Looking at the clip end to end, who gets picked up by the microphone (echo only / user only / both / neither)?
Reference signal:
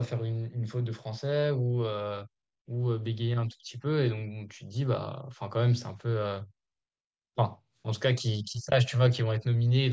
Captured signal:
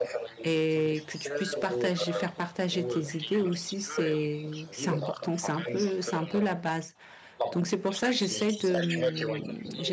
both